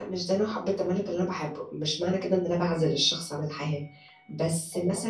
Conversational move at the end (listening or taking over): listening